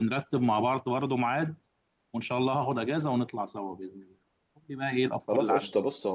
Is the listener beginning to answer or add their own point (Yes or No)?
Yes